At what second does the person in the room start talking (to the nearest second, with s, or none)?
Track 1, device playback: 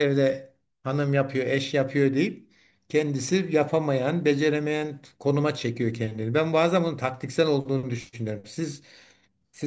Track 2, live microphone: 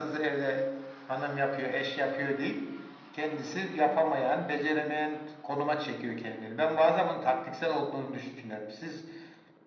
none